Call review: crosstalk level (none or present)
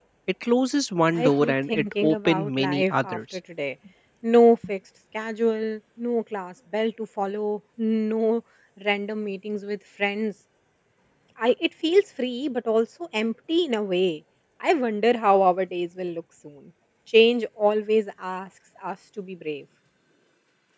present